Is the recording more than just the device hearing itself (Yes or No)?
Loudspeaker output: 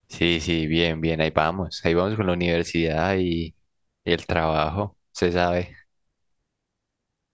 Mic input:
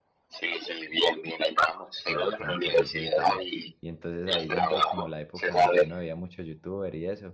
Yes